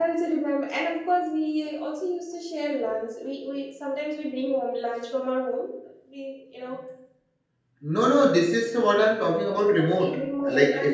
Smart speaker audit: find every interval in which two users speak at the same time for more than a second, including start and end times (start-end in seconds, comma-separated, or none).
none